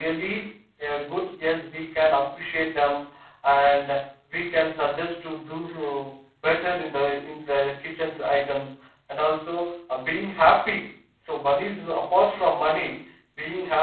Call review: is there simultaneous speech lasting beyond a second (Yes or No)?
No